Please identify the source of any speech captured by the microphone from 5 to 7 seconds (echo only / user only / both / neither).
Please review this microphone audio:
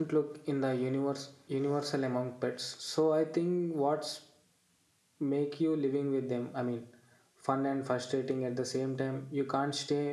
user only